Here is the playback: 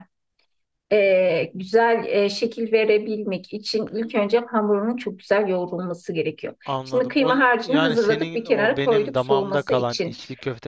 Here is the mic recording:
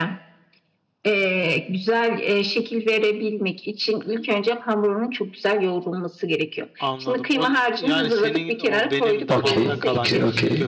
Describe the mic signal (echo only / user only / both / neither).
both